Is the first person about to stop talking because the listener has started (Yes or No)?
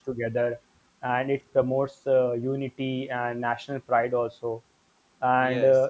No